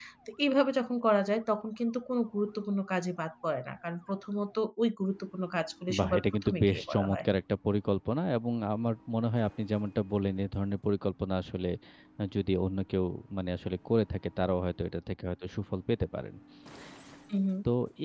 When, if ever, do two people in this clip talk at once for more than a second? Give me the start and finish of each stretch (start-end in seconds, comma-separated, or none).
6.0-7.2